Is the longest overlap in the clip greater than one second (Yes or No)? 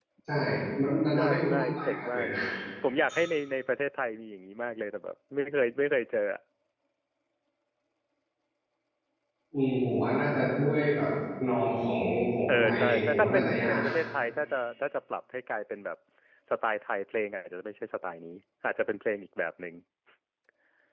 Yes